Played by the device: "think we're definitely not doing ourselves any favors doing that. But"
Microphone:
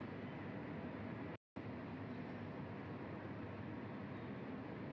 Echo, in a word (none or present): none